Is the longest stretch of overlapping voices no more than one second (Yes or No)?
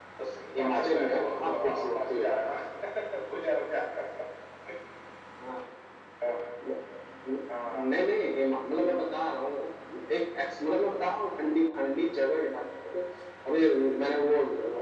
No